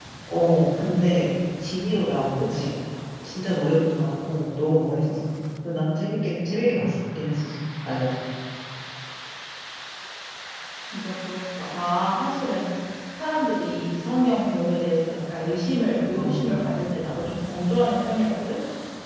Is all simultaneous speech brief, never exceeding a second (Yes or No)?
Yes